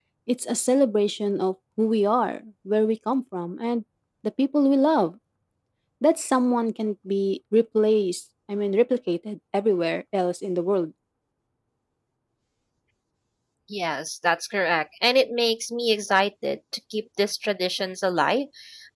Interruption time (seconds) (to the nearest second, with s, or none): none